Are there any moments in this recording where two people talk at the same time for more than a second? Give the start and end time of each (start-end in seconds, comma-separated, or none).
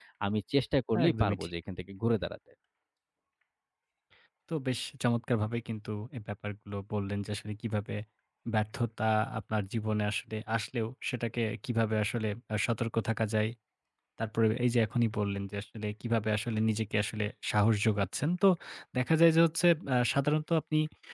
none